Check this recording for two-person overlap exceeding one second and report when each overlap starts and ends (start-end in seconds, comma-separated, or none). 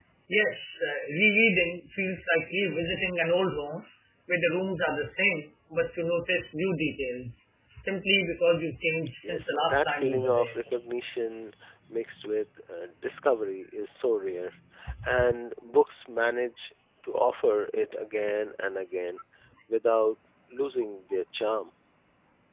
9.2-10.5